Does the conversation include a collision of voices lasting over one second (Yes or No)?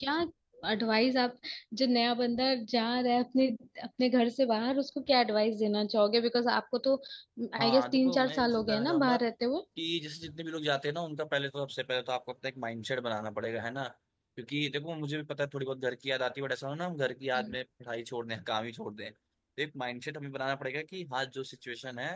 Yes